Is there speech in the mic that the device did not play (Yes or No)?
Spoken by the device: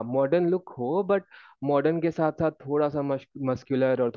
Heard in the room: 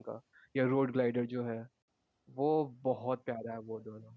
Yes